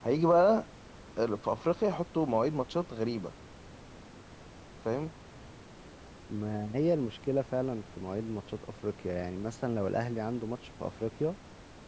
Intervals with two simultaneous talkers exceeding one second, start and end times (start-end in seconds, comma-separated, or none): none